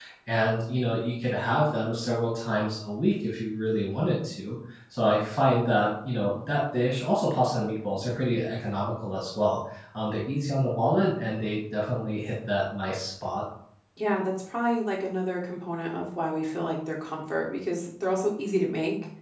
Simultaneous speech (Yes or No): No